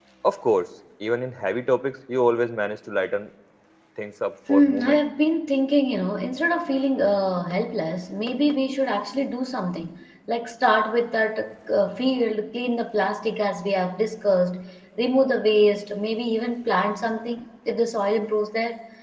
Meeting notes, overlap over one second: none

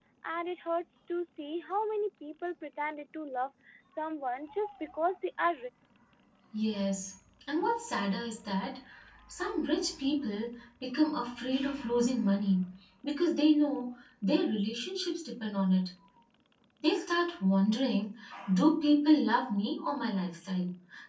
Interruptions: none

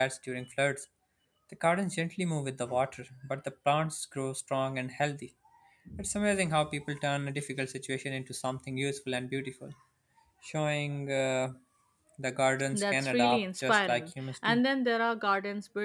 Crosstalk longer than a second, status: present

